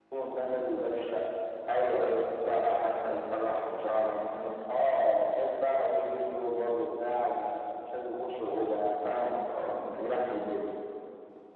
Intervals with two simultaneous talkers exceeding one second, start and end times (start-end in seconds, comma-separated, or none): none